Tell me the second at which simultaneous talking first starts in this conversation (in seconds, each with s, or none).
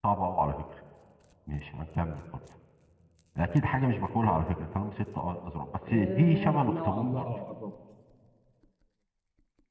5.9 s